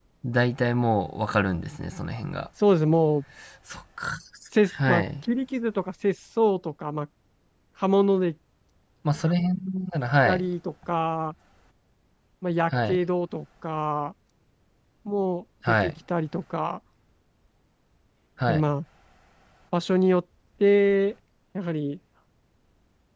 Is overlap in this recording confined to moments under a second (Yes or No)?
Yes